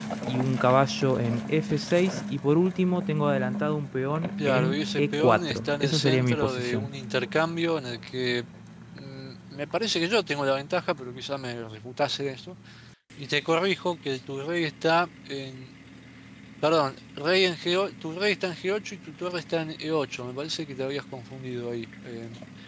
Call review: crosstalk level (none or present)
present